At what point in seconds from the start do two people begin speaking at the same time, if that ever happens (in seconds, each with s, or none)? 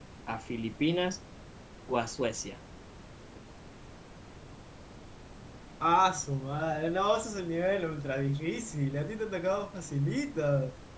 none